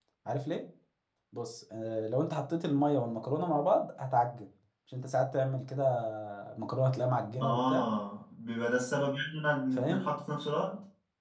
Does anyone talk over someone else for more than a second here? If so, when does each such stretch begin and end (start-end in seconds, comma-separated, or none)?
none